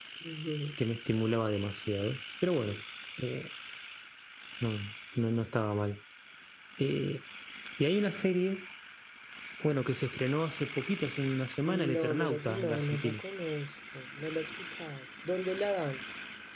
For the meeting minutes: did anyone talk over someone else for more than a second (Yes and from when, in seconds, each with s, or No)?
Yes, from 11.9 s